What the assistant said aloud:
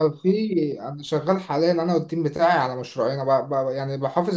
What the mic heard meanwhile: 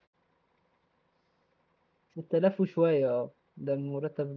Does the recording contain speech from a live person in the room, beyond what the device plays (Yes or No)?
Yes